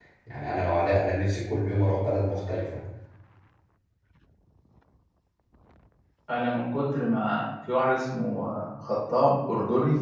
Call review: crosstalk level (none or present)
none